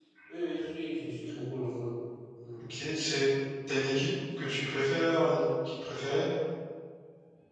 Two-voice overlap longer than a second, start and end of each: none

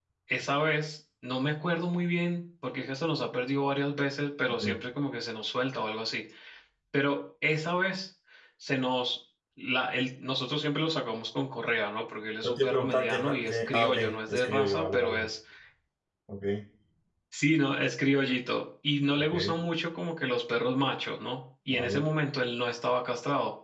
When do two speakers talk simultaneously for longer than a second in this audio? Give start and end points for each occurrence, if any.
12.4-15.3

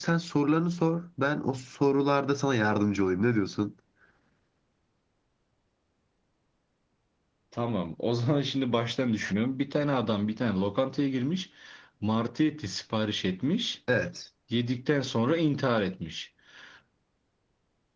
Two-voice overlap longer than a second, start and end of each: none

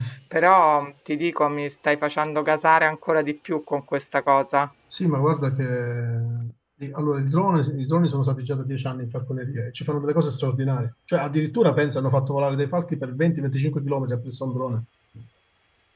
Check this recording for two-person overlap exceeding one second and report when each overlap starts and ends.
none

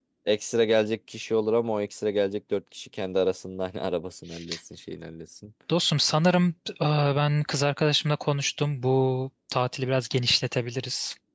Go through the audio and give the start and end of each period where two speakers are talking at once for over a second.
none

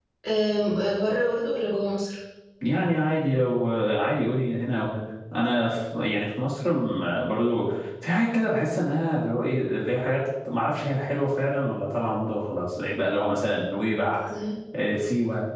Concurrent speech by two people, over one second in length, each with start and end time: none

